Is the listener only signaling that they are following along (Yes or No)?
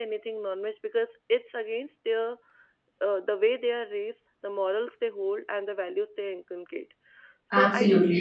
No